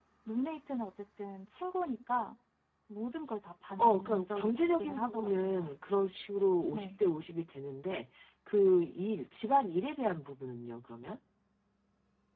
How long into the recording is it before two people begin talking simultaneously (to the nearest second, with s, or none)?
4 s